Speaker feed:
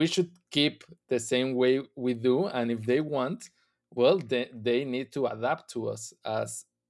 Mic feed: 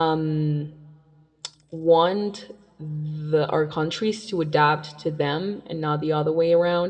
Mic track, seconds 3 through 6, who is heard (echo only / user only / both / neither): user only